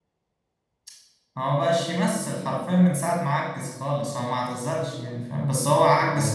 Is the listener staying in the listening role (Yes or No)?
Yes